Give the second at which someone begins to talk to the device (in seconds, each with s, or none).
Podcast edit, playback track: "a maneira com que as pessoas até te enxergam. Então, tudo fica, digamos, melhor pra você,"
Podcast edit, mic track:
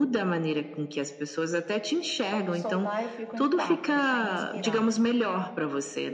2.3 s